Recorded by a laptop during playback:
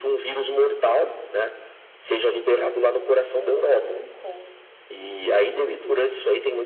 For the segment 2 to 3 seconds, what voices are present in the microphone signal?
both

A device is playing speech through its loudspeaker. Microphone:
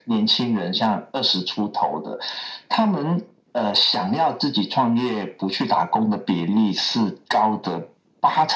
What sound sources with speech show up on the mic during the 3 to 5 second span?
echo only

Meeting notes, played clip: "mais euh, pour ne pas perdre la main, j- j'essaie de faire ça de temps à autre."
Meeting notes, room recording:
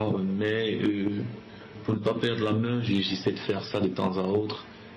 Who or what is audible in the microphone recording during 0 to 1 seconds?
echo only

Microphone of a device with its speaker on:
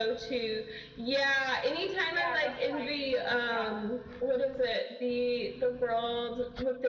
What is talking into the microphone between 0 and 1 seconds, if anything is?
echo only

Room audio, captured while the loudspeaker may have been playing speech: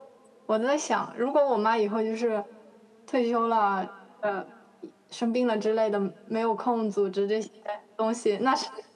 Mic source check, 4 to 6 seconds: echo only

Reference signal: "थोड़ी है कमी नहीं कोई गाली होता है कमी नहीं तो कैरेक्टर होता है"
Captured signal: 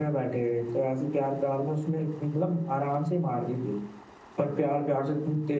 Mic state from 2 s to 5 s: user only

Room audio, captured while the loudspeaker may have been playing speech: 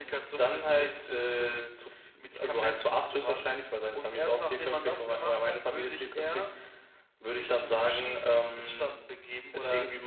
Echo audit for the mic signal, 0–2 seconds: echo only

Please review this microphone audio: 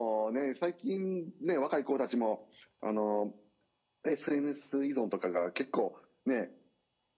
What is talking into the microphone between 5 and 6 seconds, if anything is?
echo only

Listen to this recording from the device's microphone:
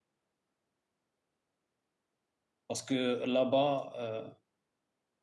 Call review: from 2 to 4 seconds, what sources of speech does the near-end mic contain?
user only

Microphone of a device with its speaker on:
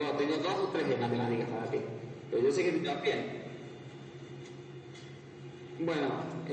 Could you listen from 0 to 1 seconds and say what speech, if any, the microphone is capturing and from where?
echo only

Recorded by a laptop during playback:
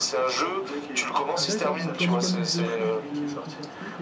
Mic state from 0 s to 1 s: echo only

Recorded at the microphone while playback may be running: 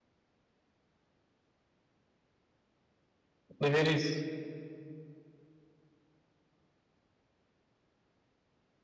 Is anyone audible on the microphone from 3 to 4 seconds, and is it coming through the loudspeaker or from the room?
user only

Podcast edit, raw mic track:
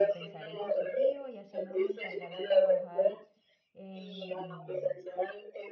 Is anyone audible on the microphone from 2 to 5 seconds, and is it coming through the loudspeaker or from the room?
both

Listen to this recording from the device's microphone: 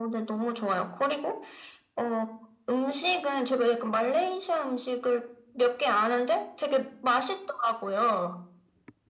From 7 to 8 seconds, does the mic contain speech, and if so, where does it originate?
echo only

